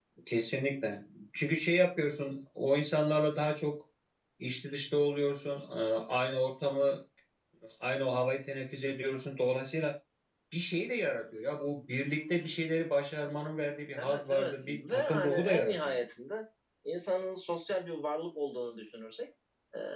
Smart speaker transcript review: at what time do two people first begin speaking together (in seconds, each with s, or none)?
14.0 s